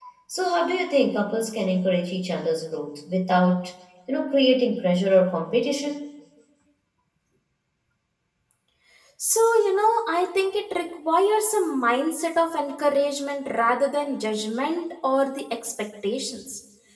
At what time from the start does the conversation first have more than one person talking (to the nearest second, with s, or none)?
none